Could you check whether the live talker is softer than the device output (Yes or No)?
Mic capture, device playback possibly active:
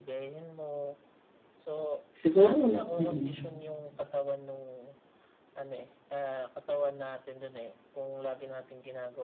No